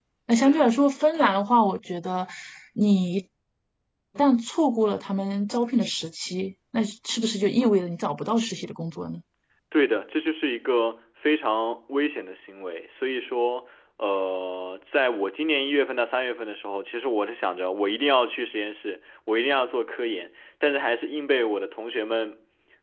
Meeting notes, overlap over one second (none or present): none